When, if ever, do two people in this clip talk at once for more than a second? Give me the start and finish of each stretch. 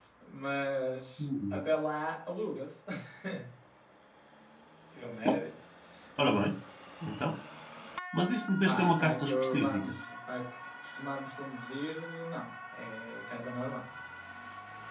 8.6-10.0

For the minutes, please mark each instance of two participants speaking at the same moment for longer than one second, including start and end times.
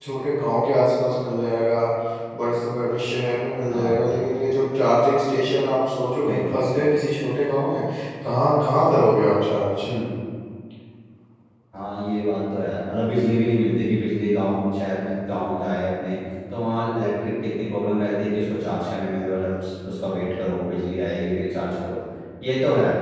none

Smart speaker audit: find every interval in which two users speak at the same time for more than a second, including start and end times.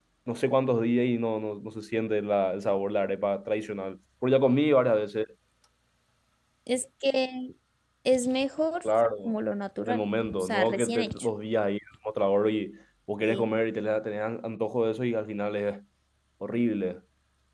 9.8-11.3

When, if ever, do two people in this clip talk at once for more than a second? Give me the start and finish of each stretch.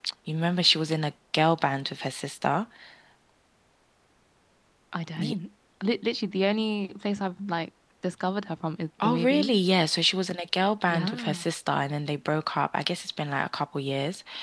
none

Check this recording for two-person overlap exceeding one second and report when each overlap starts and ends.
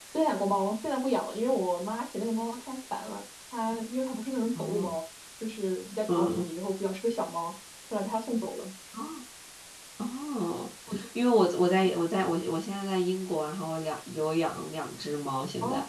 none

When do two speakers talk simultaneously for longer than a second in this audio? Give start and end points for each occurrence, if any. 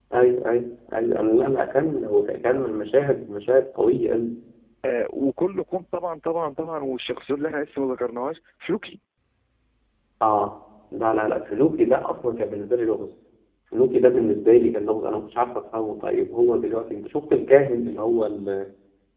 none

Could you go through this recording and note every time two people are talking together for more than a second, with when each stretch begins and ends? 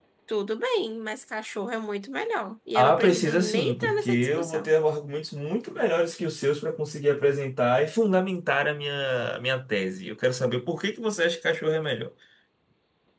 2.8-4.7

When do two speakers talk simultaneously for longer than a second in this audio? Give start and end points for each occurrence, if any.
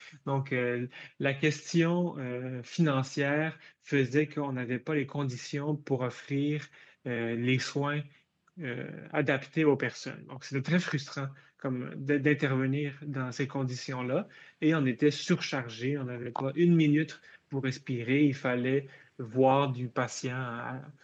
none

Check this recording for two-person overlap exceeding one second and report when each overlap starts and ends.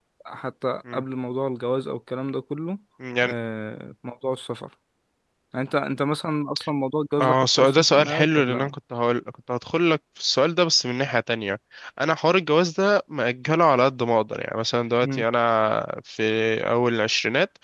7.2-8.7

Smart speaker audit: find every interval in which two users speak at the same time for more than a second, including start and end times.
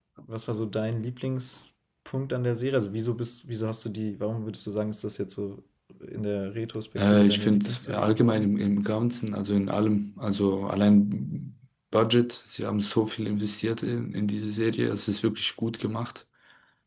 7.0-8.5

